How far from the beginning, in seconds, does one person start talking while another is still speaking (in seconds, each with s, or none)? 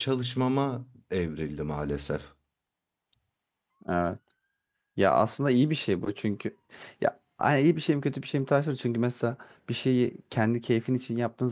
none